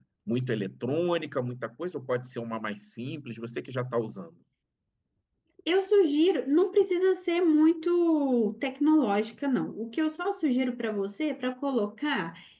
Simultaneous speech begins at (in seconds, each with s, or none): none